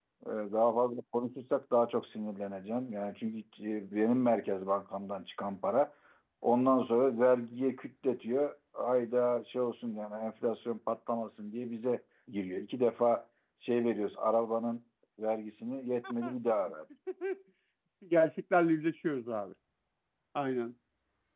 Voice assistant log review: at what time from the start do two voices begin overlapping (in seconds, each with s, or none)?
none